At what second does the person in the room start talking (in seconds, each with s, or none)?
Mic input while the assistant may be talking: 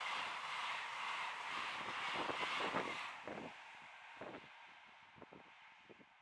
none